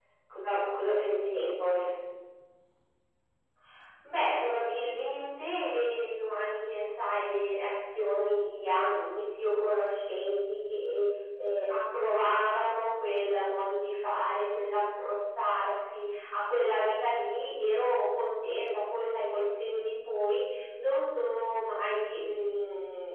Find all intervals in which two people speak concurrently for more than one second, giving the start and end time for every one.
none

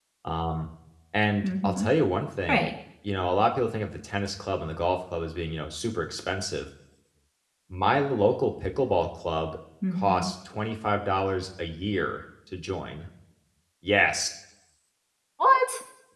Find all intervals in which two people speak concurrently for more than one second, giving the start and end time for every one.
none

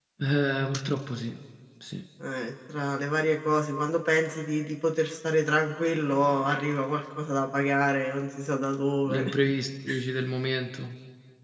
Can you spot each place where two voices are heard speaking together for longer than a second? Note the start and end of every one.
none

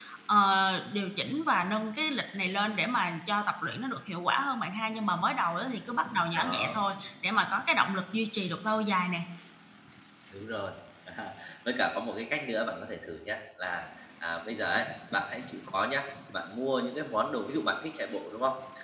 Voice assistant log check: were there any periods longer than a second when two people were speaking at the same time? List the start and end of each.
none

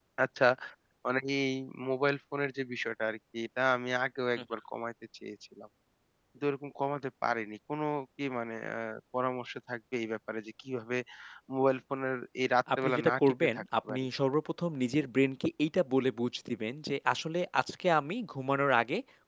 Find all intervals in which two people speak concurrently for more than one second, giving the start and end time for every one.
12.8-14.1

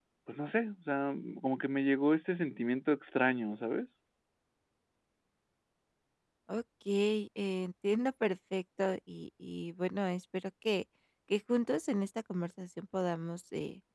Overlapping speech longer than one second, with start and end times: none

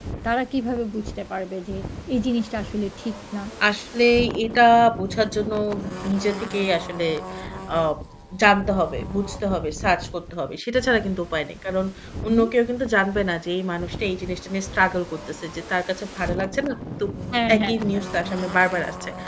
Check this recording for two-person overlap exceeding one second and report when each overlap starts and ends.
none

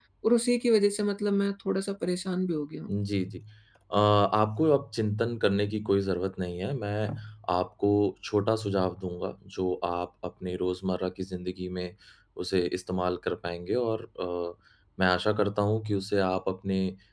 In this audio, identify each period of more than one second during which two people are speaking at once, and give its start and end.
none

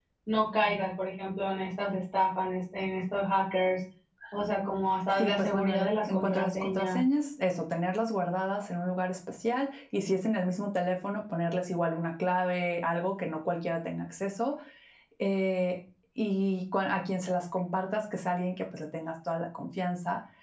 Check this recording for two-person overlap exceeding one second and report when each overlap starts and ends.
5.2-7.0

